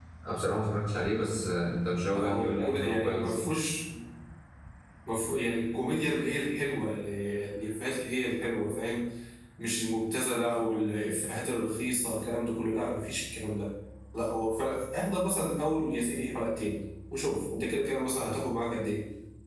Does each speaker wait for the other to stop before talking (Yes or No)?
No